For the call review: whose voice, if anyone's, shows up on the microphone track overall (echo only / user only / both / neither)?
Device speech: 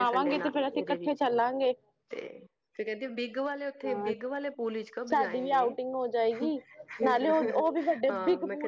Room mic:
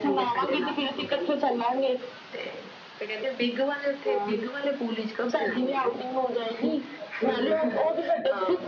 echo only